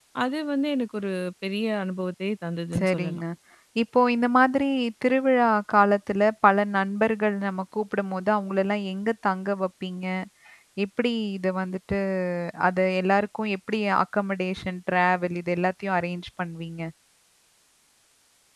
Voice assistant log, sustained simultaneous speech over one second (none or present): none